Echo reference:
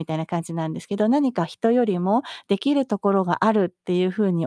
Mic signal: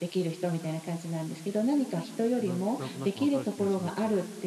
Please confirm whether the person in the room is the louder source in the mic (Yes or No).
No